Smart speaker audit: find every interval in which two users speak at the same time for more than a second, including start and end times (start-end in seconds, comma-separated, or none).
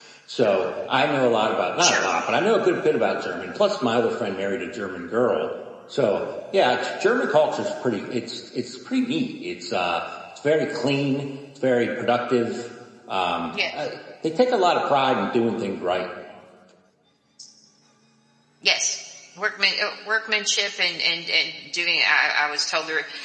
none